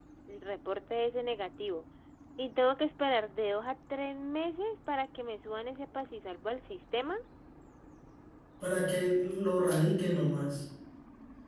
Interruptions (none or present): none